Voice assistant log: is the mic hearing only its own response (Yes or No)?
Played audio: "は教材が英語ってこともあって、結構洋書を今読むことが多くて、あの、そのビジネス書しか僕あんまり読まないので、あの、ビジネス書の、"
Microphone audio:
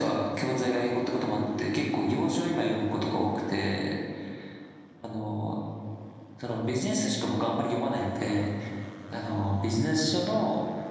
Yes